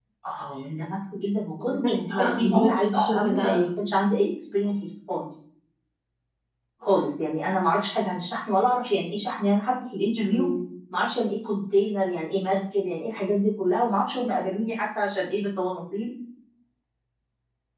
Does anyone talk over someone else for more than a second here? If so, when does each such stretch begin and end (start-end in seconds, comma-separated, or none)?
1.7-3.7